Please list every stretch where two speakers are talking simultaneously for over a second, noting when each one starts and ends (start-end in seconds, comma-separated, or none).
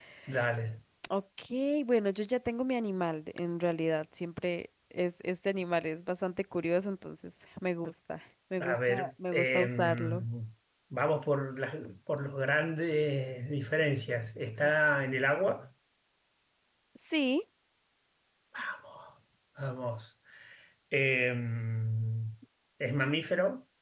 8.6-10.2